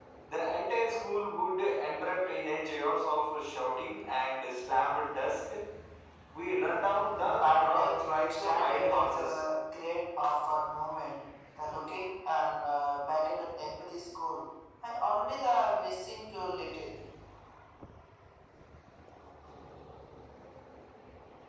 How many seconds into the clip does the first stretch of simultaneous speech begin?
7.4 s

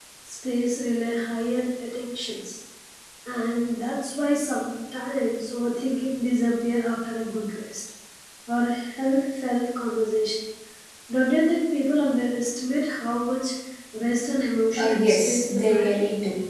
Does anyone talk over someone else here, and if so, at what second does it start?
14.8 s

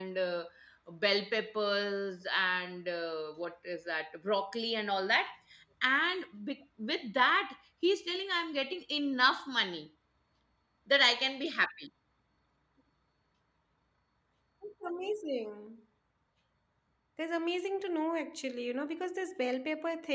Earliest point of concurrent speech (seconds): none

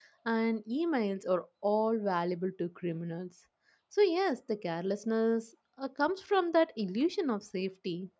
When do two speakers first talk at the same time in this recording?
none

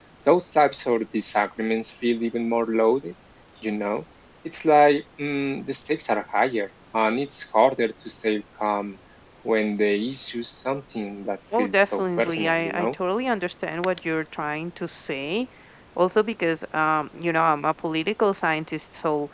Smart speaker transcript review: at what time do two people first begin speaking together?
11.5 s

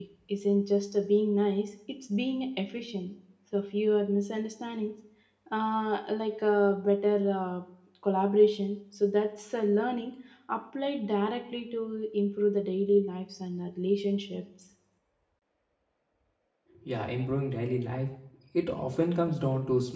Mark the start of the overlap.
none

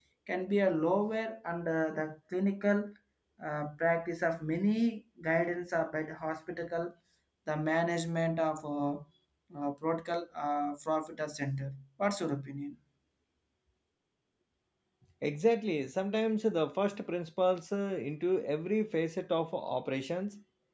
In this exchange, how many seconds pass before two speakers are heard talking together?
none

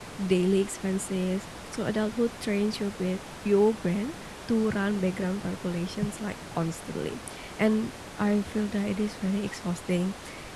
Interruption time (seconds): none

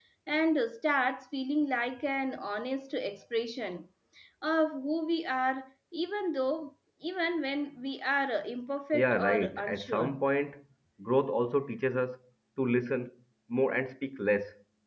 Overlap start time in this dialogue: 8.9 s

